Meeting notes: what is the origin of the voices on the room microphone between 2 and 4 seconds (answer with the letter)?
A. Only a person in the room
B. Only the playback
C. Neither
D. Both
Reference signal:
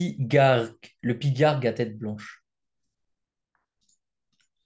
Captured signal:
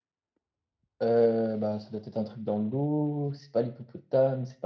A